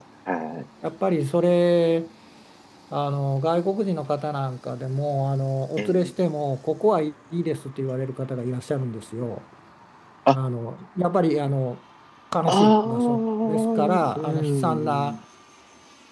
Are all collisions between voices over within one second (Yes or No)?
No